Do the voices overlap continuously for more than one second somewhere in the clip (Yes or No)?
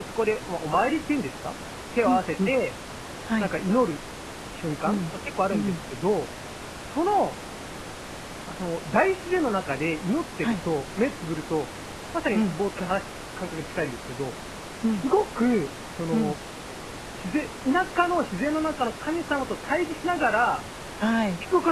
No